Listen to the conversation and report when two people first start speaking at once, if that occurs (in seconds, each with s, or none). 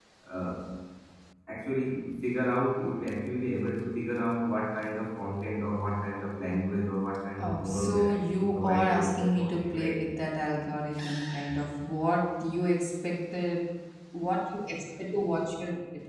7.4 s